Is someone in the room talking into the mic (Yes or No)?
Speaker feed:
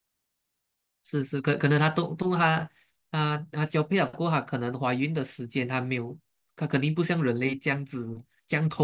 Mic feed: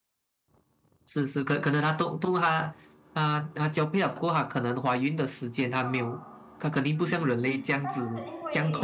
Yes